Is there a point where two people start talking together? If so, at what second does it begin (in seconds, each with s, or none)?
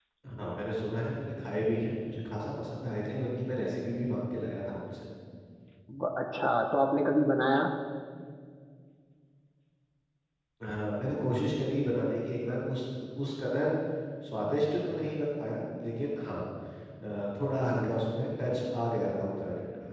none